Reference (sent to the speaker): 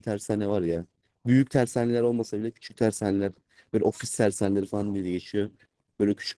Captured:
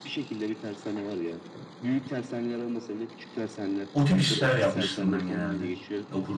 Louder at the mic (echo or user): user